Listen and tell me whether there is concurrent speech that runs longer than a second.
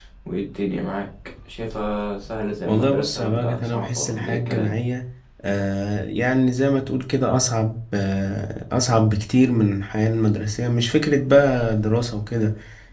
Yes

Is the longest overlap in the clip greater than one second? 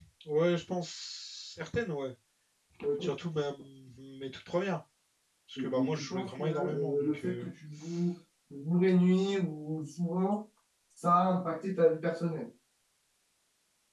Yes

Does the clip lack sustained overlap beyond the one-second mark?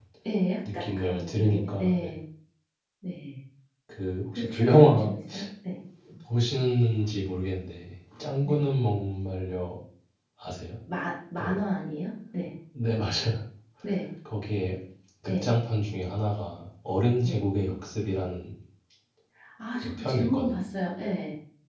No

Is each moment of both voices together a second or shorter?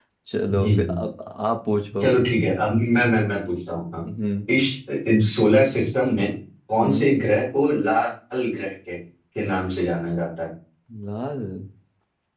Yes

